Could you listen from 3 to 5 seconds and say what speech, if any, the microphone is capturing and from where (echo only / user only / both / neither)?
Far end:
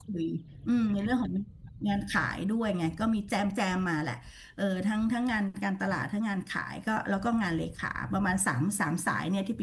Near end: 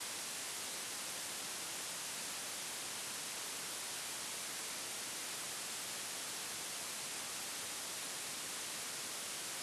neither